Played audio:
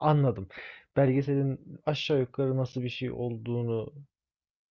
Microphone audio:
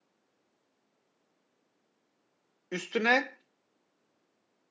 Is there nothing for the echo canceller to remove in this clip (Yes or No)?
Yes